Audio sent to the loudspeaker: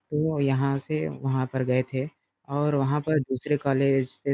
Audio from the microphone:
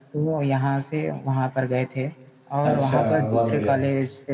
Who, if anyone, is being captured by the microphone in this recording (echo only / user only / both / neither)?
both